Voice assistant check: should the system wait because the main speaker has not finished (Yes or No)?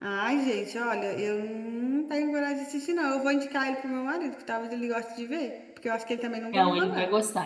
No